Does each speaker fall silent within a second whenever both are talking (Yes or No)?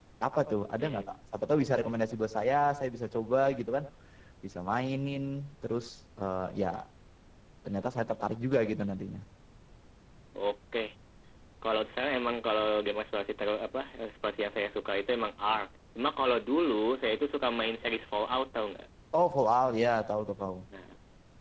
Yes